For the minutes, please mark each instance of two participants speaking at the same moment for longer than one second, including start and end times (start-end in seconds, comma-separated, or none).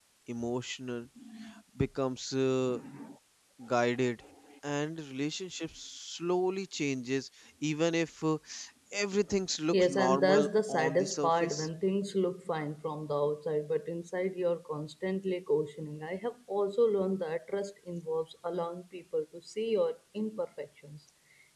9.7-11.7